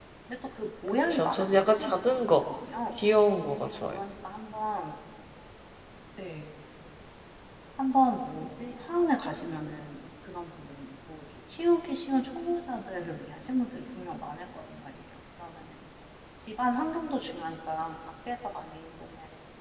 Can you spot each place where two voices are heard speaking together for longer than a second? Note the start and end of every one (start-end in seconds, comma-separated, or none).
0.9-2.4